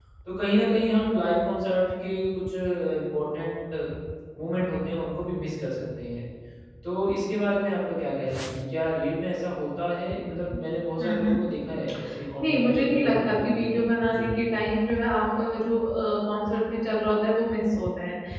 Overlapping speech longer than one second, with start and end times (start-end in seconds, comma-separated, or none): 12.4-13.6